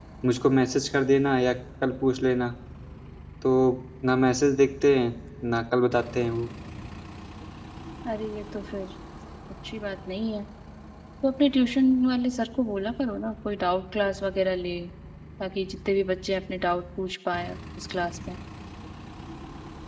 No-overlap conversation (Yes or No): Yes